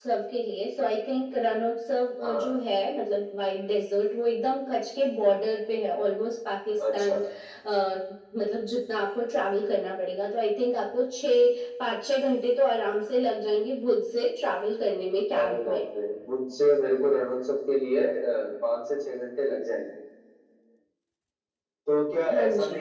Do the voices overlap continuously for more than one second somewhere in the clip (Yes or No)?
No